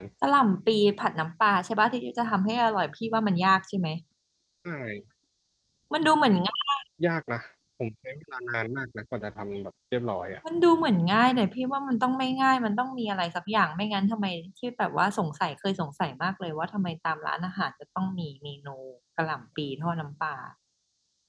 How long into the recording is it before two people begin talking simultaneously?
none

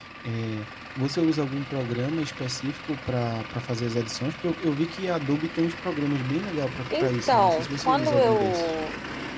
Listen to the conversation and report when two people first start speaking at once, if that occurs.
6.9 s

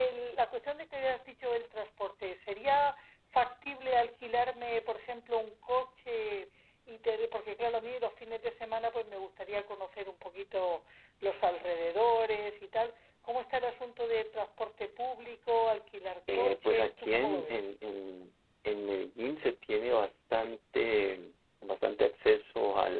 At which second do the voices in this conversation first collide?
16.3 s

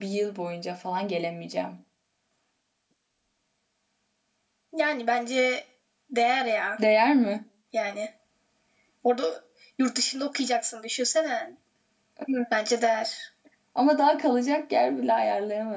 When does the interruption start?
none

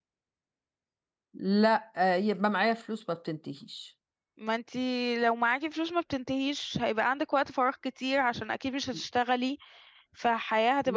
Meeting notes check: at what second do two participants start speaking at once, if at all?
none

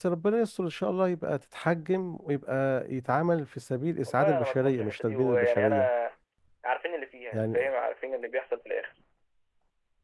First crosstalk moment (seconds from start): 4.1 s

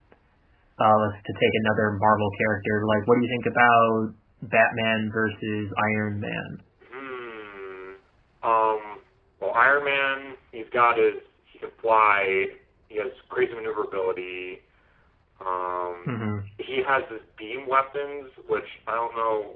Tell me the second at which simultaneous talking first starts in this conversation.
none

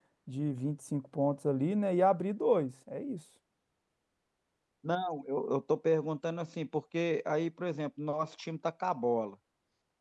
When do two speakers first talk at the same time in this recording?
none

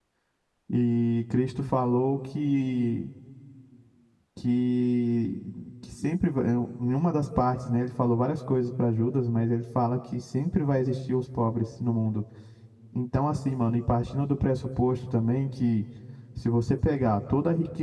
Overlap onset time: none

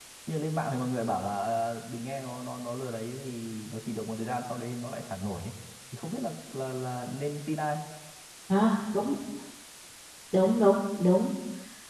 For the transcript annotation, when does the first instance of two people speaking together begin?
none

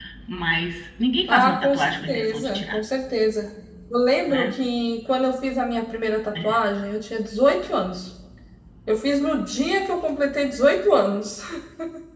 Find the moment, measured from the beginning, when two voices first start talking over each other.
1.3 s

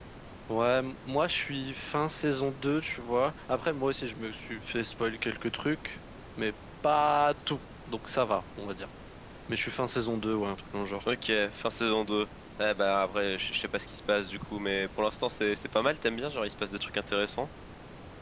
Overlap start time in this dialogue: none

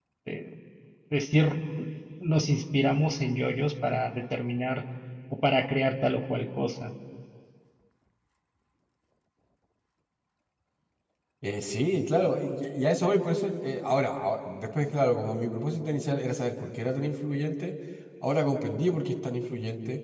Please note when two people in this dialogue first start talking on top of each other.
none

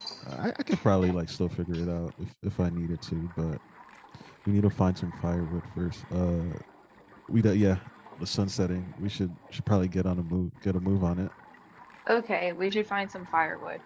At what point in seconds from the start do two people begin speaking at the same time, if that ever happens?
none

